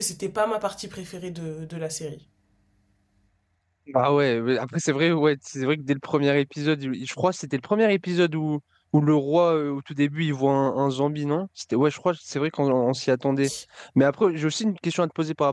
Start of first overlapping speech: none

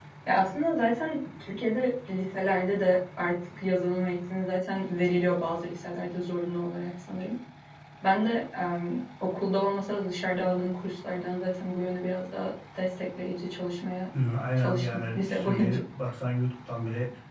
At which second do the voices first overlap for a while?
15 s

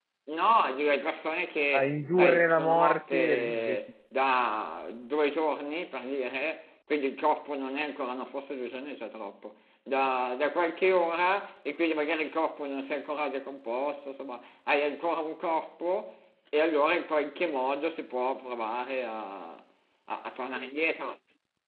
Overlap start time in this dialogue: 2 s

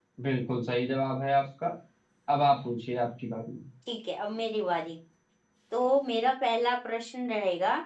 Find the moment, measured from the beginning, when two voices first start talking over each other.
none

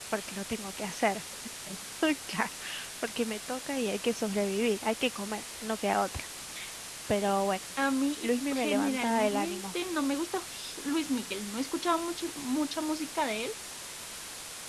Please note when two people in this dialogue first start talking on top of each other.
8 s

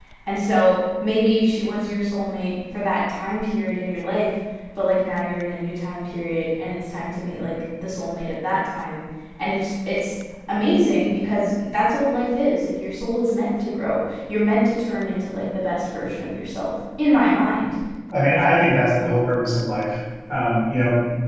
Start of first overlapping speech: none

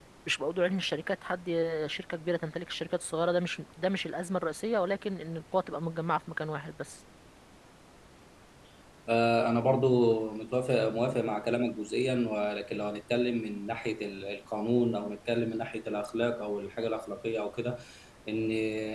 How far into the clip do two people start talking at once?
none

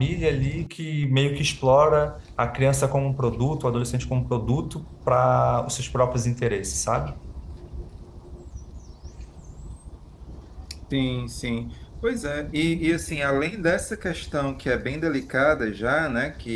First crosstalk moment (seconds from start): none

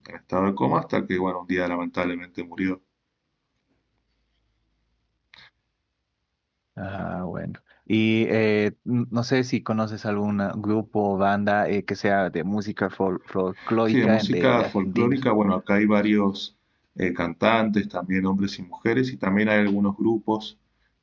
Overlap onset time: 14 s

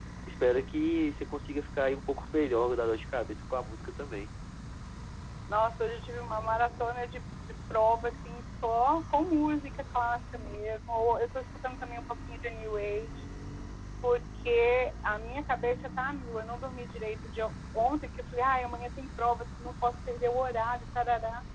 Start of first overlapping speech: none

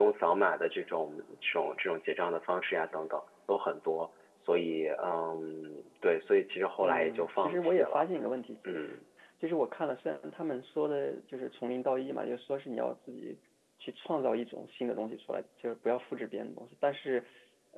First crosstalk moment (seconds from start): 7 s

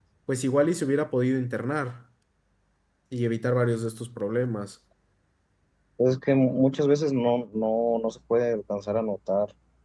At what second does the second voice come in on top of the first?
none

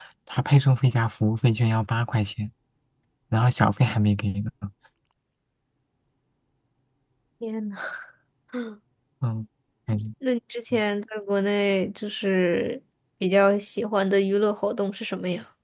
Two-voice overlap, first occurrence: none

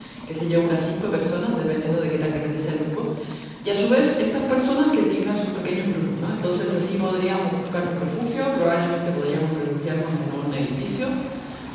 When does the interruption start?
none

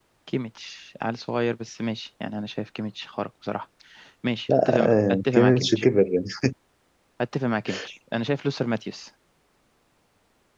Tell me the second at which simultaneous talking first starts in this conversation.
4 s

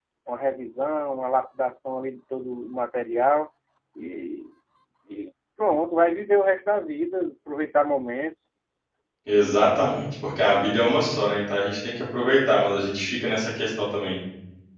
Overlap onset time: none

